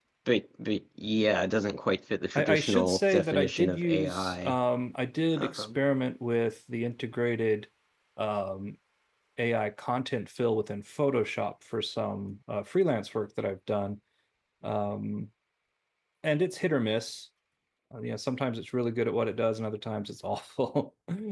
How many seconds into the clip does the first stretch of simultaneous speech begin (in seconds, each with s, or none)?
2.4 s